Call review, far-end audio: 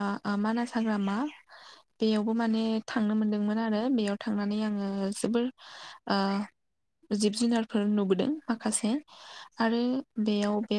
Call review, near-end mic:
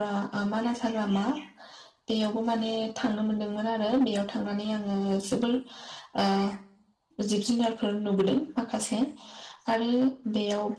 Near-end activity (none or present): none